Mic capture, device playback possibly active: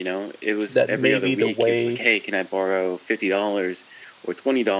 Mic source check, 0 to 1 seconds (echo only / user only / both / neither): both